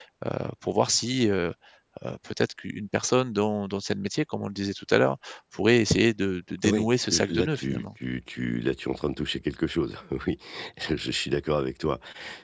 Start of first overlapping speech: 6.6 s

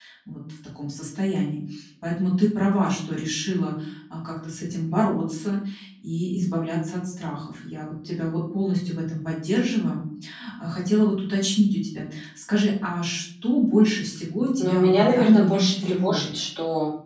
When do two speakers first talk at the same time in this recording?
14.6 s

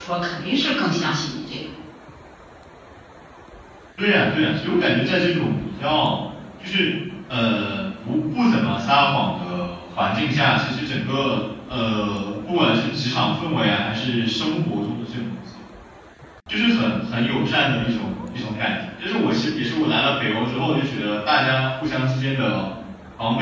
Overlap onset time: none

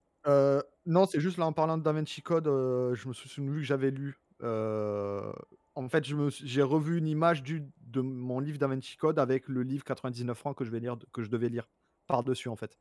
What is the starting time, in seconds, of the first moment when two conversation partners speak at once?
none

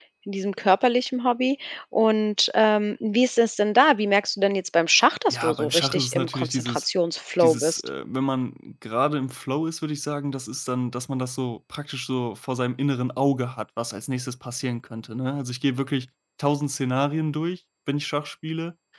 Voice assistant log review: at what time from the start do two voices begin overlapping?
5.3 s

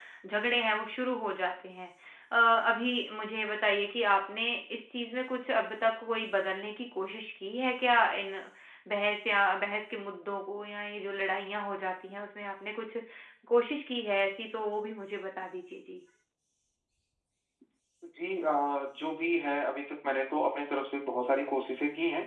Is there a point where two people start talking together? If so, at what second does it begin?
none

